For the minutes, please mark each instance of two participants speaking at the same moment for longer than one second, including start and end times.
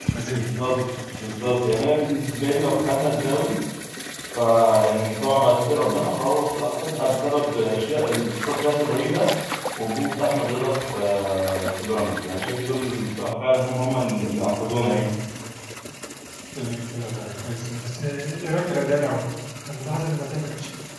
none

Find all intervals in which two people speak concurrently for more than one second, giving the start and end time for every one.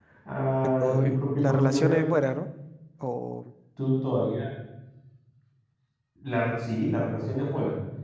0.8-2.0

